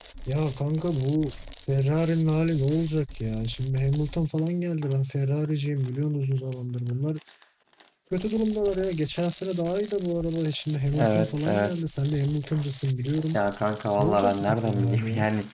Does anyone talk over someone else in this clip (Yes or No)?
Yes